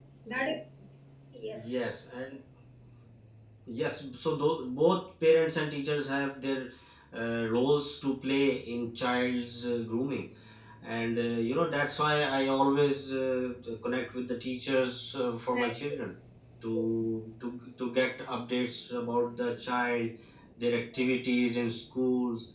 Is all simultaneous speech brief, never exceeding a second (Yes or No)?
Yes